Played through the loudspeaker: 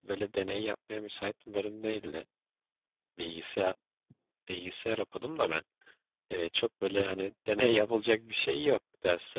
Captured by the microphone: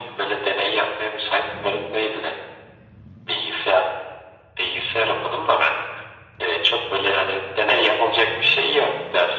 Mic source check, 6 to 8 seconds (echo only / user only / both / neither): echo only